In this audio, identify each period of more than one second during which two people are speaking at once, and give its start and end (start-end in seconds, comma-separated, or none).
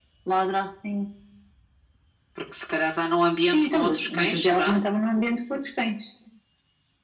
3.5-4.8